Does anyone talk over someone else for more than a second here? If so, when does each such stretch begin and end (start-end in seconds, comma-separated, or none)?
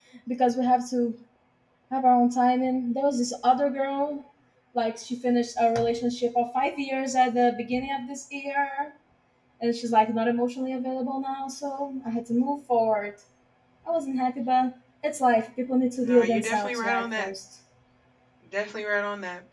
16.0-17.3